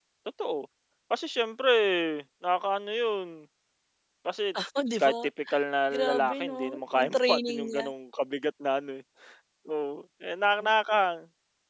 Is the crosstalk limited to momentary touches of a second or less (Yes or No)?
No